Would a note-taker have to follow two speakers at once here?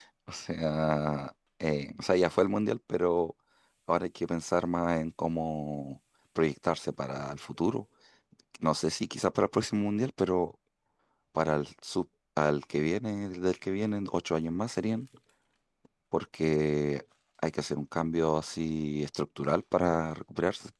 No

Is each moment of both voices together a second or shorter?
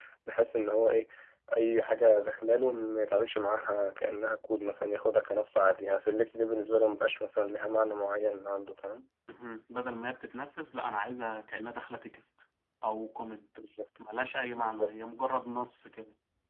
Yes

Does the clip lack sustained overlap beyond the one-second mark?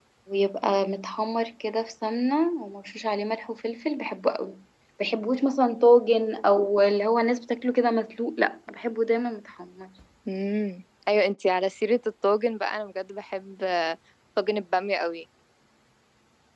Yes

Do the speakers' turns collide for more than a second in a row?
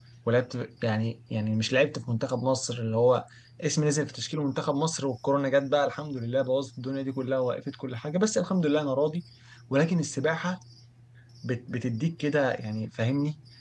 No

